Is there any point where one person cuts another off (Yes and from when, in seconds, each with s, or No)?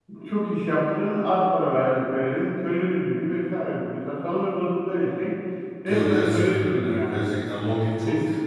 Yes, from 5.9 s